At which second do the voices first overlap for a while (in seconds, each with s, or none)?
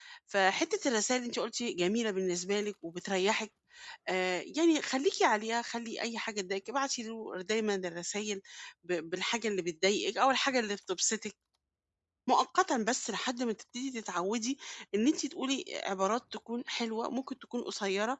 none